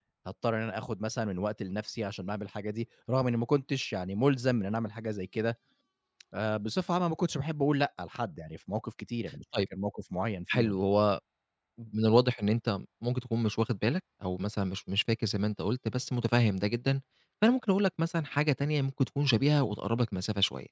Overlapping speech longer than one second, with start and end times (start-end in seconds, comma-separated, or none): none